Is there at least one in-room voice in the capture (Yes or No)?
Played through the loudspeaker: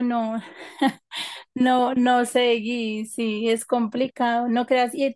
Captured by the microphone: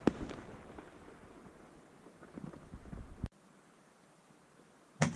No